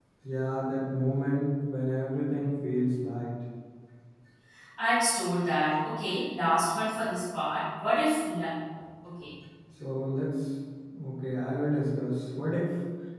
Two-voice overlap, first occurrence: none

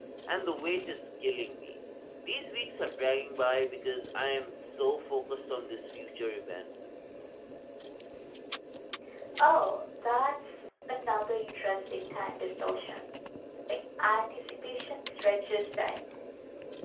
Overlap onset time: none

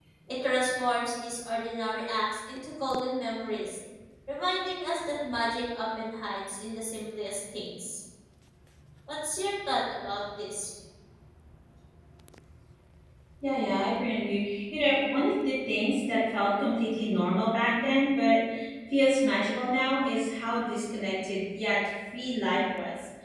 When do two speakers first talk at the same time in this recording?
none

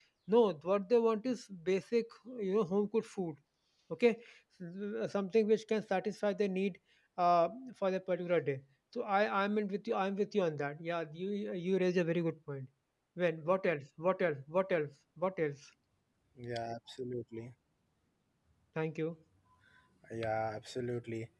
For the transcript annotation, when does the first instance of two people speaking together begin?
none

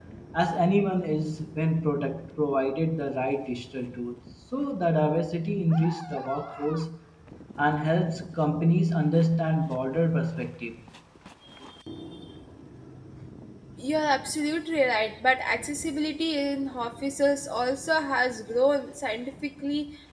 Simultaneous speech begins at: none

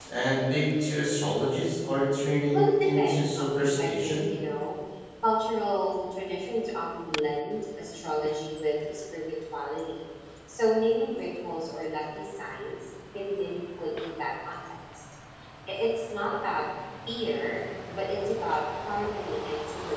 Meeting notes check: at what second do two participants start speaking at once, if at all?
2.5 s

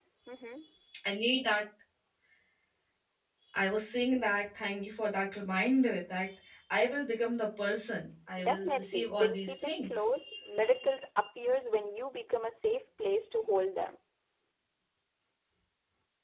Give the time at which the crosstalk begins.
8.4 s

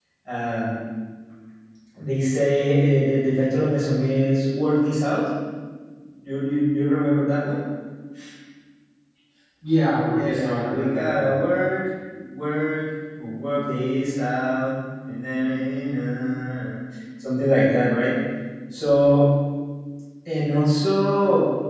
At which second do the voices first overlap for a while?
10.2 s

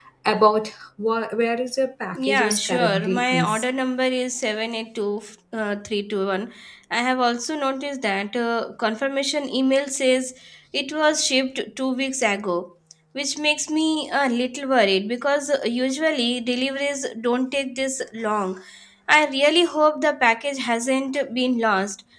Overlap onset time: 2.2 s

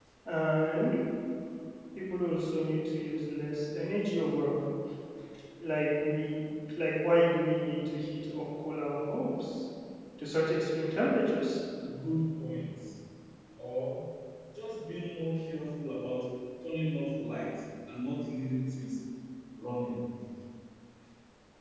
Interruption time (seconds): none

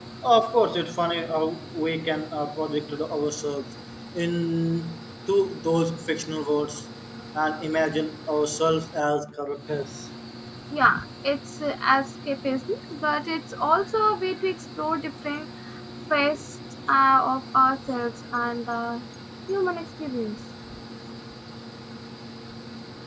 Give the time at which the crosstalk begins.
none

